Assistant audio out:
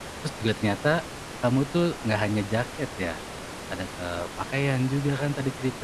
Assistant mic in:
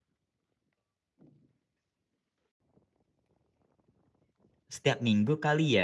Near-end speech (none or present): present